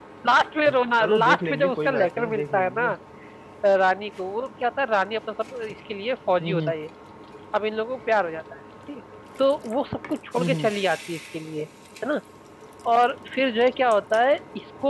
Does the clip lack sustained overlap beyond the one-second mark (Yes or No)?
No